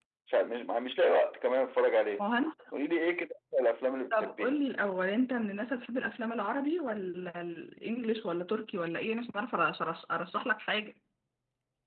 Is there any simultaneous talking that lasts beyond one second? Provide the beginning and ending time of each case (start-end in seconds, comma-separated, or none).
none